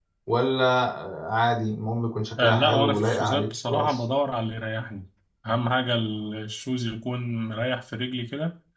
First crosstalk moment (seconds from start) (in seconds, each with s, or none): 2.4 s